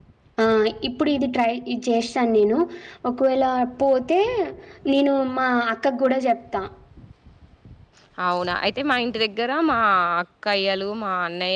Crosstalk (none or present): none